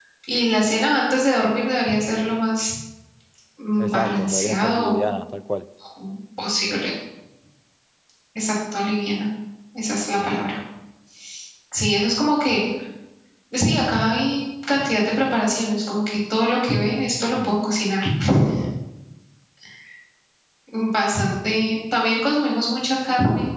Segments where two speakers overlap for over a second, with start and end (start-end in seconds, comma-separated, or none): 3.8-5.0